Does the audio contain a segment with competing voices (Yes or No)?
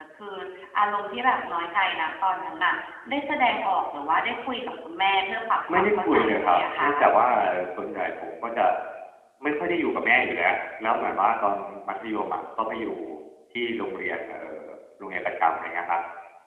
Yes